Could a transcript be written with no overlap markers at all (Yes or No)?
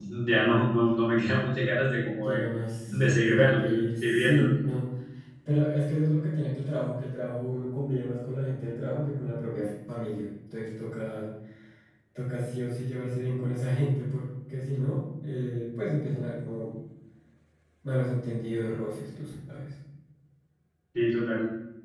No